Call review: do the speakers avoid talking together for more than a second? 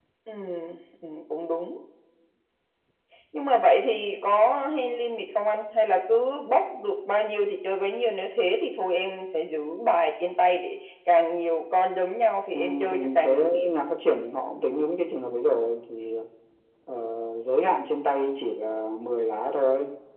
No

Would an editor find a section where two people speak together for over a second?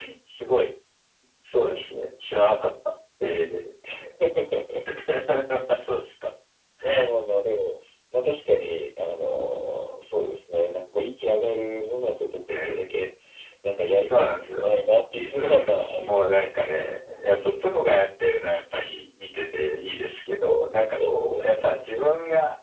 Yes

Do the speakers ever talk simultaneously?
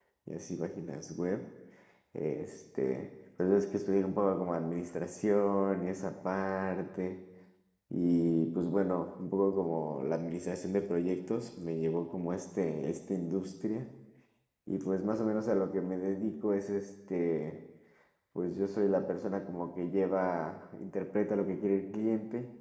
No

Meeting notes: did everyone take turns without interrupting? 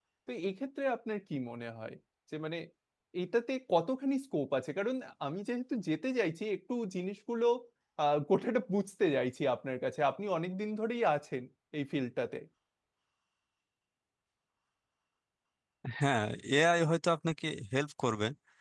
Yes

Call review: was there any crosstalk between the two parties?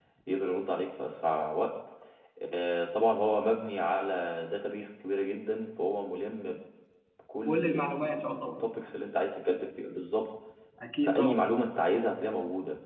Yes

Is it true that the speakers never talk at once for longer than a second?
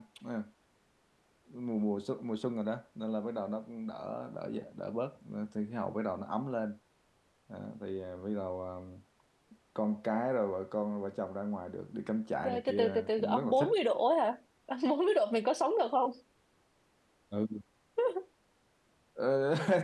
No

